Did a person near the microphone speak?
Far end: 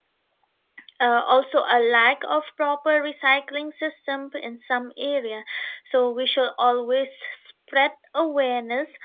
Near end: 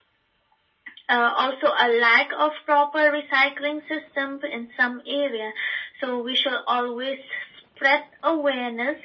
No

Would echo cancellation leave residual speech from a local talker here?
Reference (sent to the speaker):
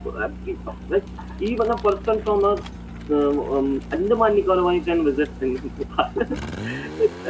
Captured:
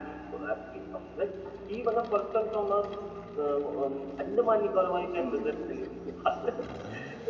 Yes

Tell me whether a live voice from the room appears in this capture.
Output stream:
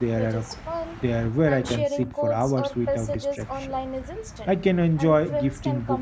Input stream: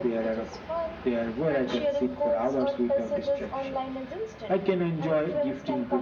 No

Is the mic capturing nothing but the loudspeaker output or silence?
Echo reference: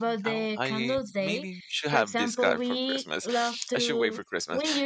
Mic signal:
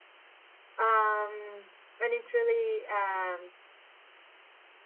No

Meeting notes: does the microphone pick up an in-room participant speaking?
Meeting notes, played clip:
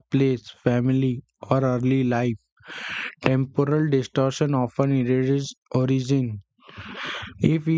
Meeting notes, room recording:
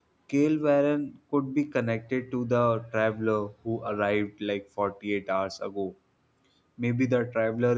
Yes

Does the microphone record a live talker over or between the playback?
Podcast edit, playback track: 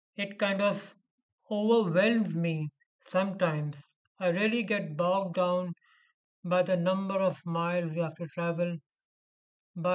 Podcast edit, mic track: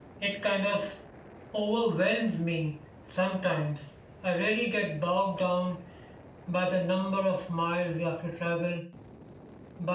No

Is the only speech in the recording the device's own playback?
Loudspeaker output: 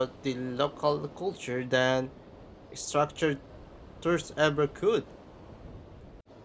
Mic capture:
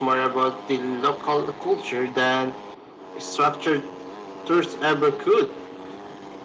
Yes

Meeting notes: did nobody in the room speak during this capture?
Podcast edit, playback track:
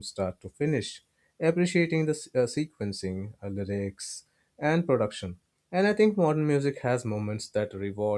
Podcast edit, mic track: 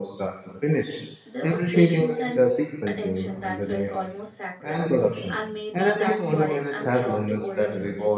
No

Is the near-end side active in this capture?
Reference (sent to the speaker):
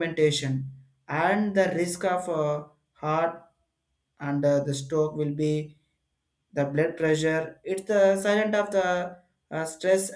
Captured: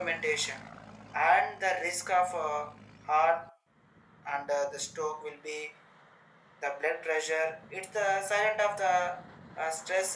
No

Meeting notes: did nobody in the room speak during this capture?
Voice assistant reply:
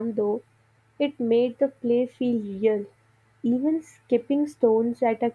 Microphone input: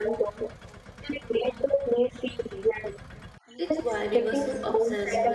No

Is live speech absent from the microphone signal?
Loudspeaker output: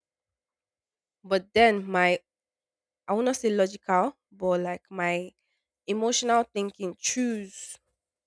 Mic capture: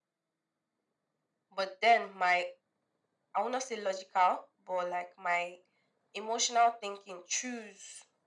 Yes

